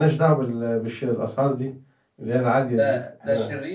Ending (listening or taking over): taking over